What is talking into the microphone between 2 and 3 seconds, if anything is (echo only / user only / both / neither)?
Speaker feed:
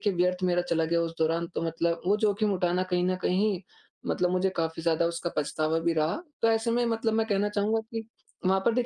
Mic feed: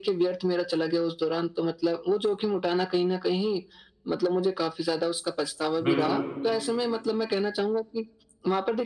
echo only